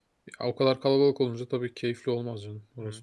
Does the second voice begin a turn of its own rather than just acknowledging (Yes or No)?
Yes